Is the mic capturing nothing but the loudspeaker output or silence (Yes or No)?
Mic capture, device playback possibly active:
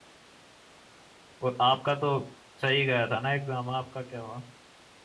No